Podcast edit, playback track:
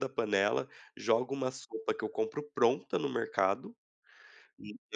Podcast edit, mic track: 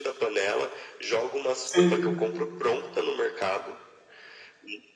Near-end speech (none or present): present